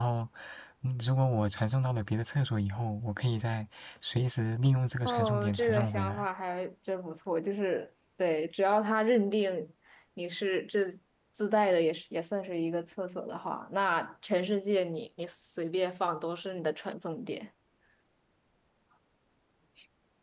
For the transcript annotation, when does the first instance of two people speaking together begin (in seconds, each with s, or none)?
5.0 s